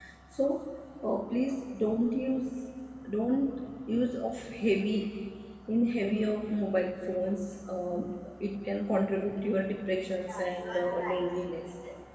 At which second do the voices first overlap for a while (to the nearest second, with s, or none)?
10 s